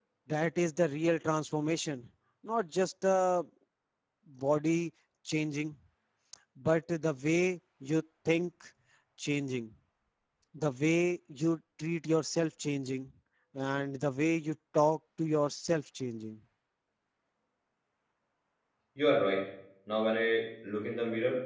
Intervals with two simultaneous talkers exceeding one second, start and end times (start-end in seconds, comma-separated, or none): none